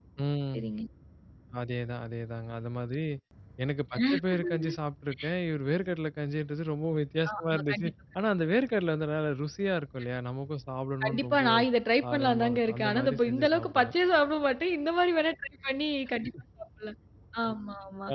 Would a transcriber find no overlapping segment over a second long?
No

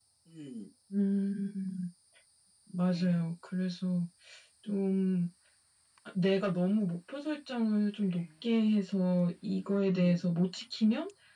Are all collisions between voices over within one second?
Yes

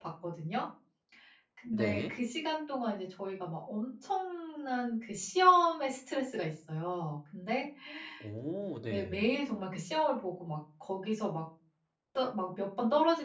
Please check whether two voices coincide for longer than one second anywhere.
No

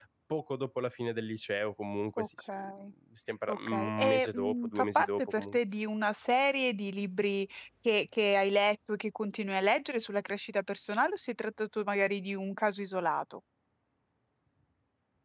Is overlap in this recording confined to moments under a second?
No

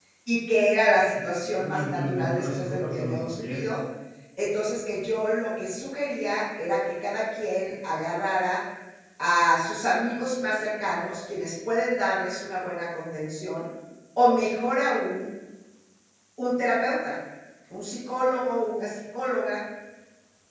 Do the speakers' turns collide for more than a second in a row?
Yes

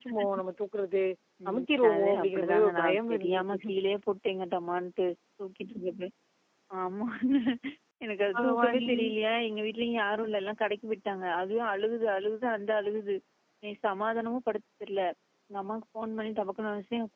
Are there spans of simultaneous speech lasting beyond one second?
Yes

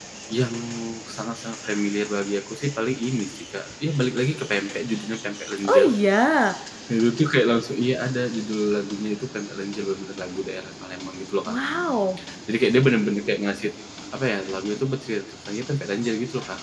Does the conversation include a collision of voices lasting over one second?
No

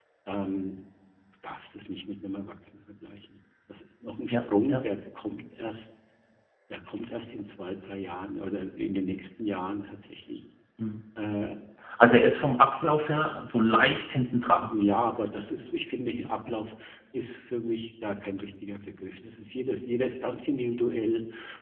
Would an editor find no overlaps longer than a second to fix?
Yes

